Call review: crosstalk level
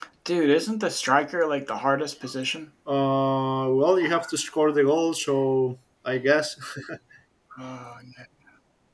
none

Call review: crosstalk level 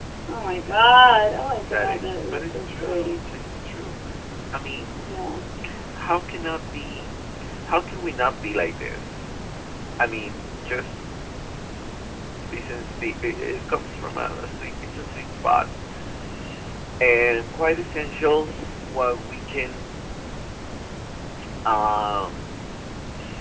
present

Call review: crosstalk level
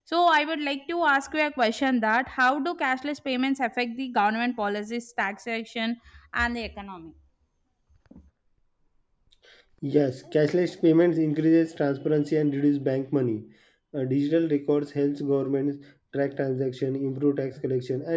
none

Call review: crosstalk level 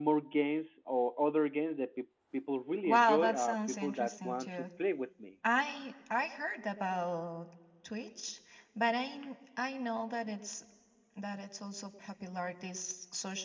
present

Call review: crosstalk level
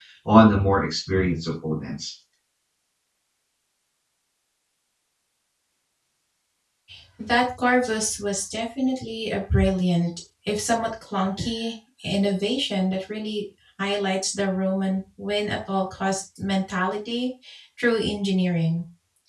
none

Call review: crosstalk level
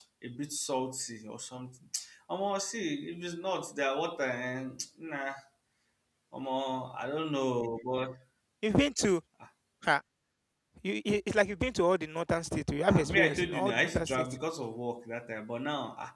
present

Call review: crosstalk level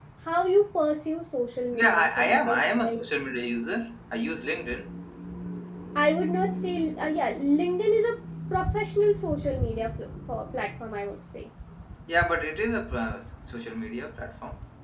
present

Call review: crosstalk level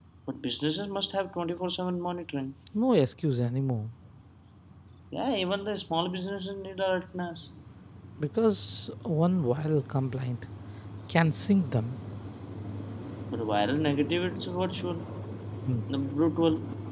none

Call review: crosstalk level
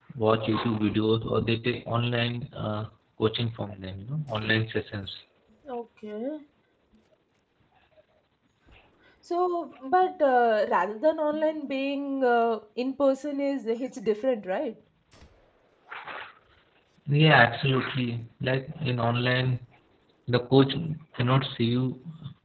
none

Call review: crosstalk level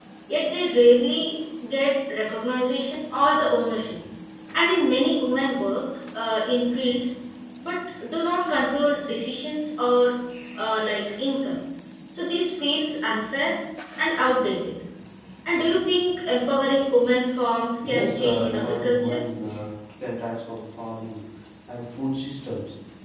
present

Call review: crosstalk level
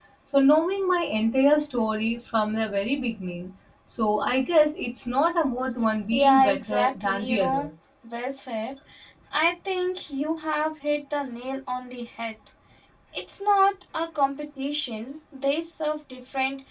present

